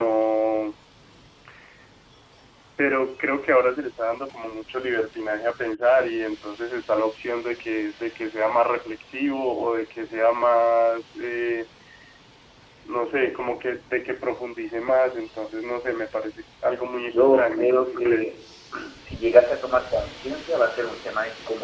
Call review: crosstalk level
present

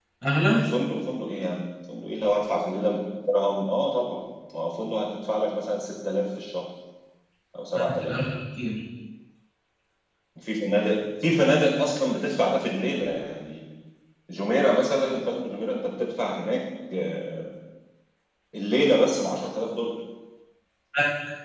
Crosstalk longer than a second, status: none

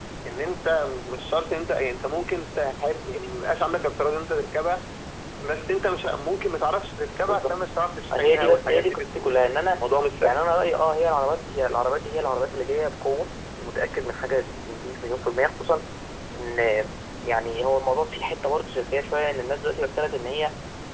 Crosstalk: present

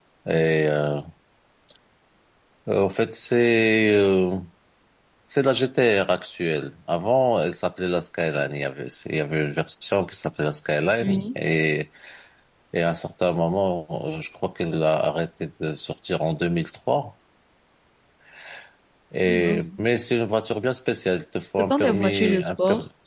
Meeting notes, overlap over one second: present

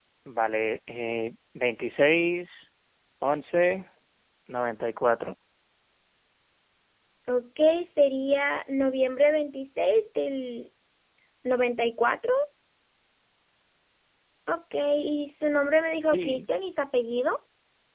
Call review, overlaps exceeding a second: none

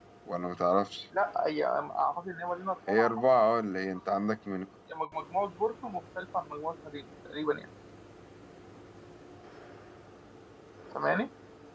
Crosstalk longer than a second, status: none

